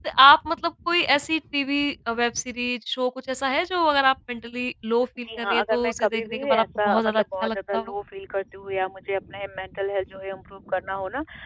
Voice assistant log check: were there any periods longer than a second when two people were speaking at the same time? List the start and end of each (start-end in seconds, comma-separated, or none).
5.2-7.9